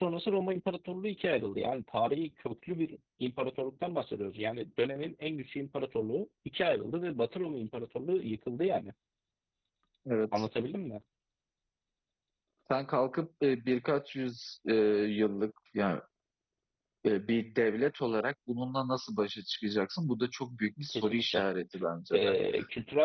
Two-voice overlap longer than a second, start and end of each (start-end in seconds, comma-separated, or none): none